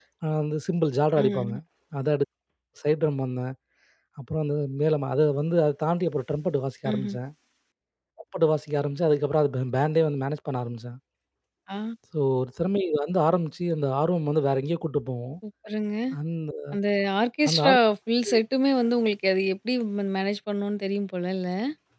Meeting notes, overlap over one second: none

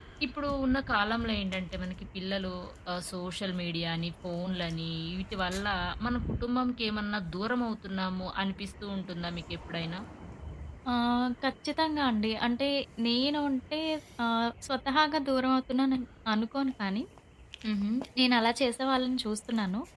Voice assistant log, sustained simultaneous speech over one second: none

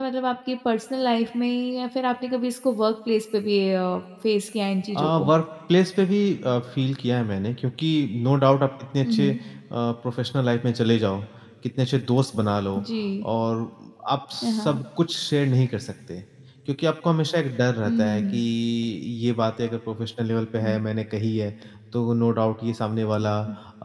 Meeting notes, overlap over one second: none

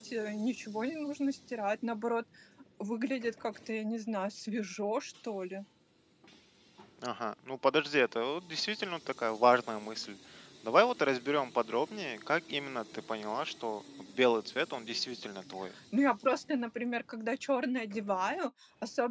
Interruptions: none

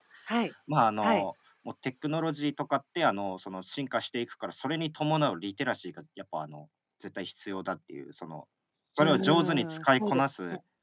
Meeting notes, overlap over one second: present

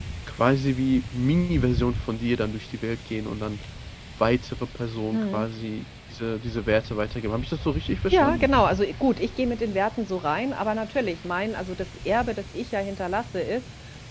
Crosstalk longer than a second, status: none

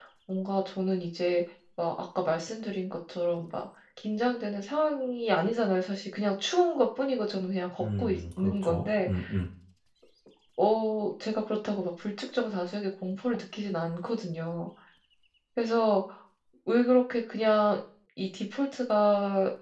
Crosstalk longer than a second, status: present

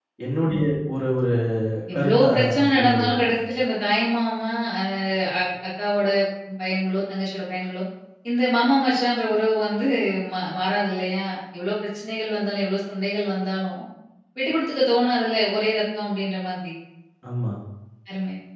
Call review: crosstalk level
present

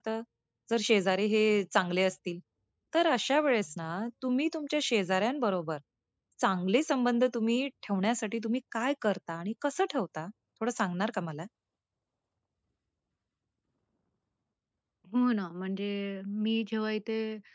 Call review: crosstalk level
none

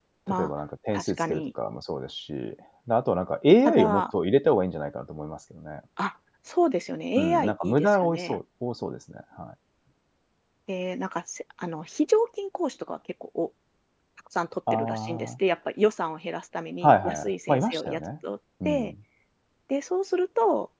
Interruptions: present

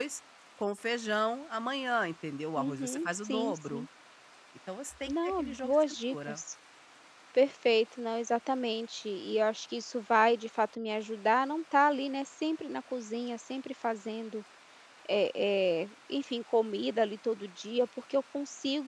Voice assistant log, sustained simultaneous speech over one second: present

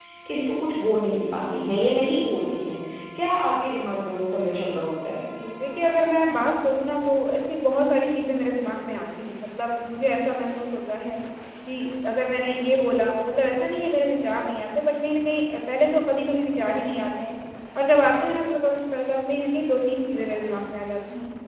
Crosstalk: none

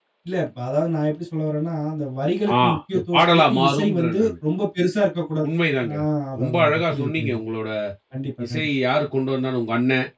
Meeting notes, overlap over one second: present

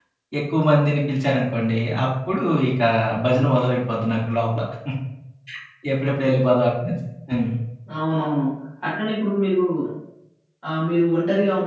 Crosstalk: none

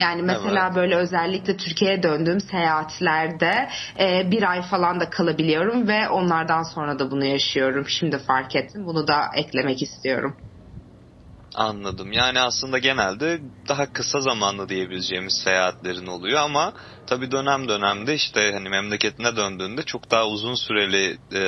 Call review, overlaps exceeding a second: none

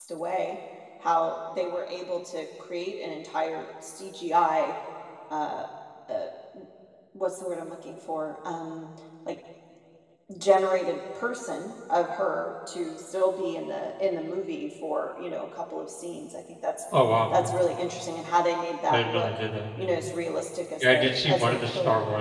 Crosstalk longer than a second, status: present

